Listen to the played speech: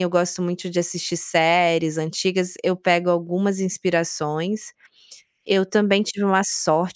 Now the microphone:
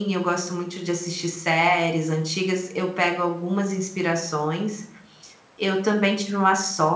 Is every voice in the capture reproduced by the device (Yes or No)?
Yes